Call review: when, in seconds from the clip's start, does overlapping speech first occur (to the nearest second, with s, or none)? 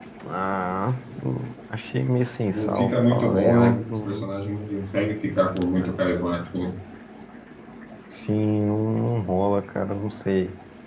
3 s